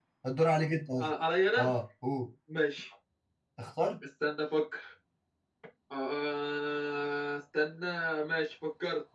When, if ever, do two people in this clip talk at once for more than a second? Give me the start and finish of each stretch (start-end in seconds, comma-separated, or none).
none